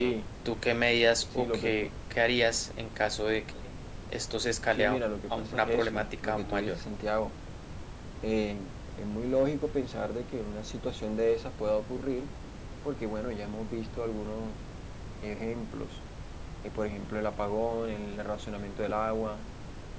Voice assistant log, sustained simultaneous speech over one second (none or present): present